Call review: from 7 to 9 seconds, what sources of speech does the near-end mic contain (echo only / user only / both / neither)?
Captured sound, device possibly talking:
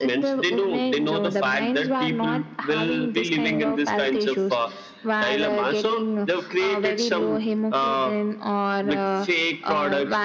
echo only